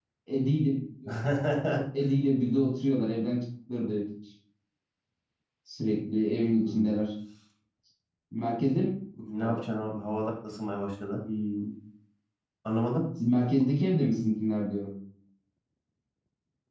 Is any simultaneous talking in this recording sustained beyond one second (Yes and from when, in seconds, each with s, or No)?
No